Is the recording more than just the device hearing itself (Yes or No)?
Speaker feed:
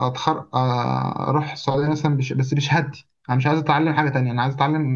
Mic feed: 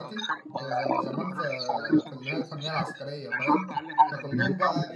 Yes